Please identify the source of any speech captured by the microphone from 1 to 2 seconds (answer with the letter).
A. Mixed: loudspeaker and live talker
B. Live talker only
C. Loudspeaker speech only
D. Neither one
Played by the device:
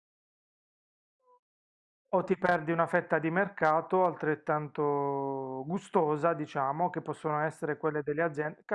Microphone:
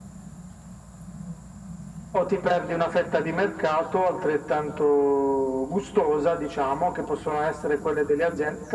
D